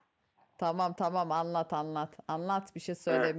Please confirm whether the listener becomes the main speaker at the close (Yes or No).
Yes